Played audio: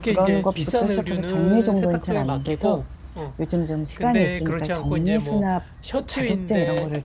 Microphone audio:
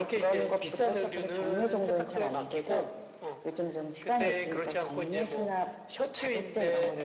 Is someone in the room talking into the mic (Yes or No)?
No